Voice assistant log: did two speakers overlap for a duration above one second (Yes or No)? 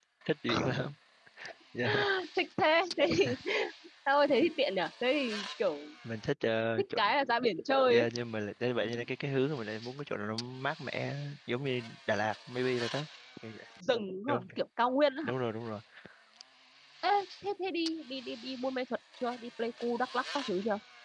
No